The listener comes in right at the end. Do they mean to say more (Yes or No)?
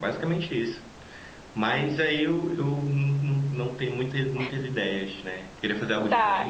Yes